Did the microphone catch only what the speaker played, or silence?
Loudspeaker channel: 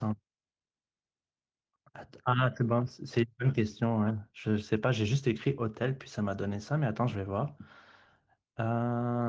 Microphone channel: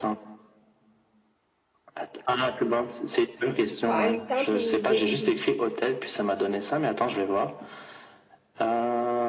No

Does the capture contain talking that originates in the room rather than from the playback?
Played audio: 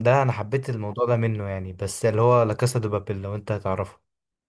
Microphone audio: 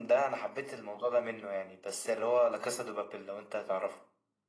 No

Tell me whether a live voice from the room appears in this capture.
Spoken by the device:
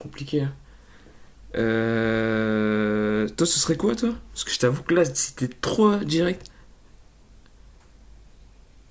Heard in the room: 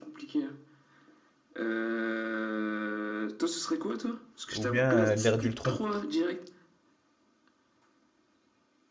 Yes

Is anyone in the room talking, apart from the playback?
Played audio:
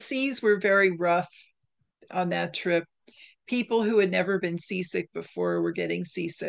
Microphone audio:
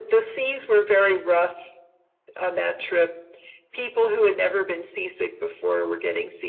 No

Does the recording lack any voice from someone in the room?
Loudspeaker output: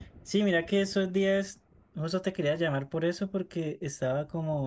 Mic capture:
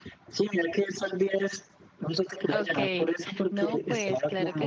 No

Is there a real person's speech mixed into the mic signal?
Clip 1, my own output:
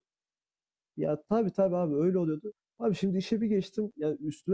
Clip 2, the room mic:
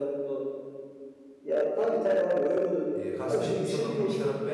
Yes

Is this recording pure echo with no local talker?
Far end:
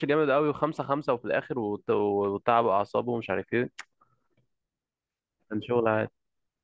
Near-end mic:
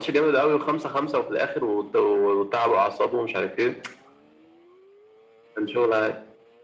Yes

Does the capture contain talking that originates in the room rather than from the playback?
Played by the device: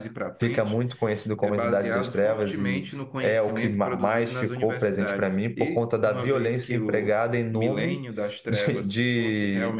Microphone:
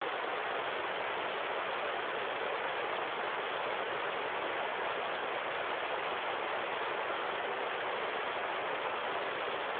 No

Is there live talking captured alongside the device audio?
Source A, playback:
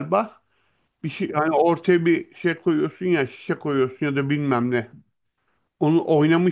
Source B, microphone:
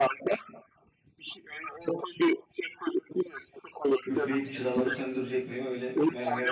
Yes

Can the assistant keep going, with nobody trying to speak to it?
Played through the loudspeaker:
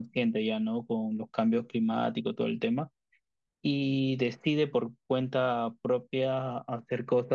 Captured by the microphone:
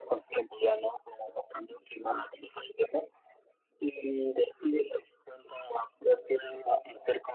Yes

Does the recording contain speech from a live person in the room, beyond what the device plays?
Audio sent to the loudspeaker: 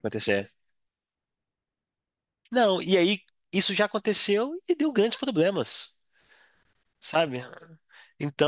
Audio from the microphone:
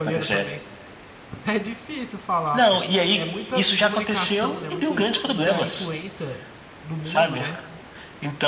Yes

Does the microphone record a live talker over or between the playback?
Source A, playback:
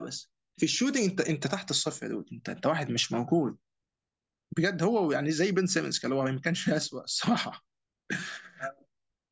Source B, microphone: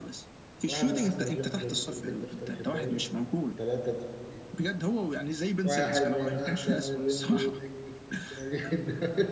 Yes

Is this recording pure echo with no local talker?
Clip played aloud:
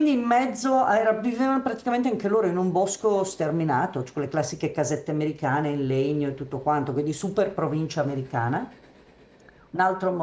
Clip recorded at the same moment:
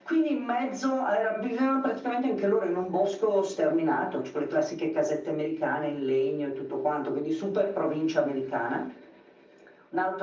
Yes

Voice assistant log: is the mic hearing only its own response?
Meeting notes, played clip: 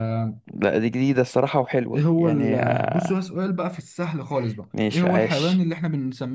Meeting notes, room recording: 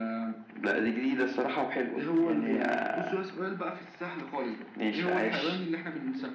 Yes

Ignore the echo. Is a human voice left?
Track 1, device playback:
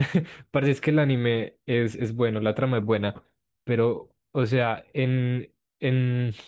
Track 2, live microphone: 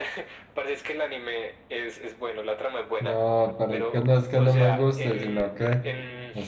Yes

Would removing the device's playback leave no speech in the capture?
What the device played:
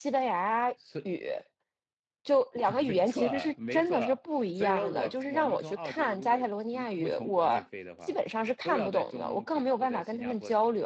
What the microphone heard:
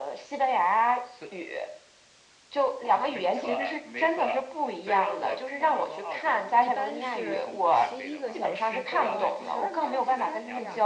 No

